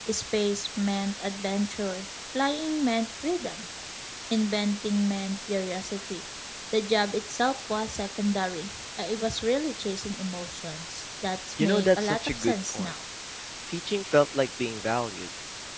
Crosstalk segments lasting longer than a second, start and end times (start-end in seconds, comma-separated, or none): 11.6-12.9